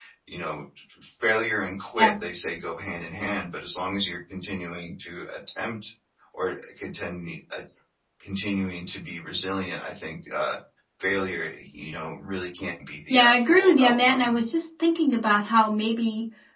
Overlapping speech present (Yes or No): Yes